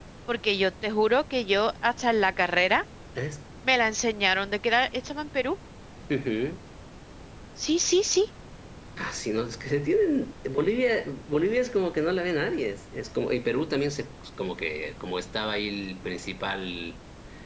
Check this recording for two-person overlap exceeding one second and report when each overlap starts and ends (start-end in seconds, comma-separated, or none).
none